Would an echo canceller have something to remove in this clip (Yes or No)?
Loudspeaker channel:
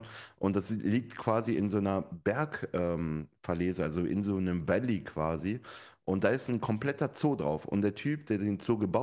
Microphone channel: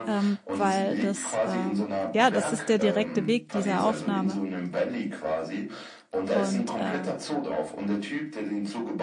Yes